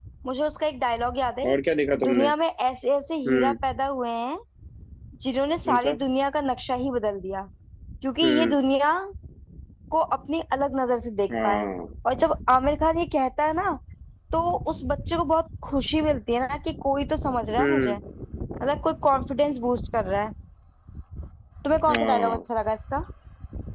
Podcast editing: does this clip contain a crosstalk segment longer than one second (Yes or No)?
No